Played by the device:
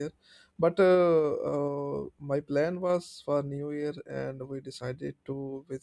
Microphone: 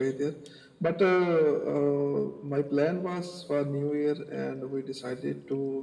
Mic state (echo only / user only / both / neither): echo only